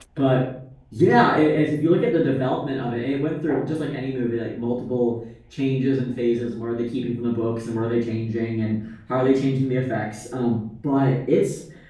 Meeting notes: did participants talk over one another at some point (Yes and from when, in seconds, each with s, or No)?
No